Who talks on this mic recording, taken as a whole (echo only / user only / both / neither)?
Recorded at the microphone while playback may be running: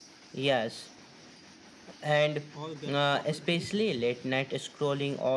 both